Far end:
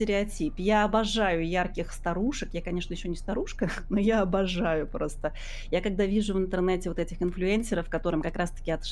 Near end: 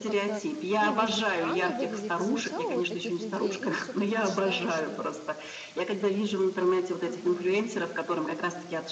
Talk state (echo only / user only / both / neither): both